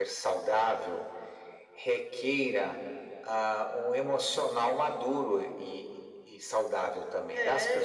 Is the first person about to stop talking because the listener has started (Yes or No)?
Yes